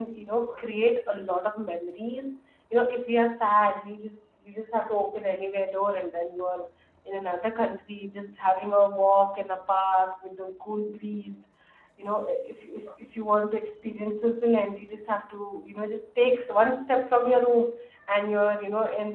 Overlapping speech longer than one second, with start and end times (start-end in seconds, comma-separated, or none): none